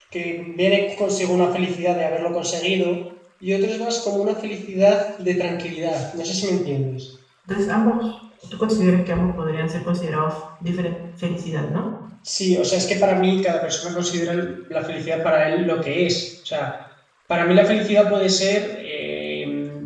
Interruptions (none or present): none